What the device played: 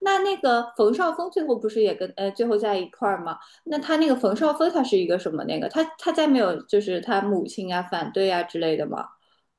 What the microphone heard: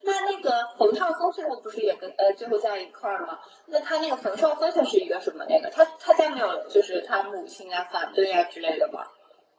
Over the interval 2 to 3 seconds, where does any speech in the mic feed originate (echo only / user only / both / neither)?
echo only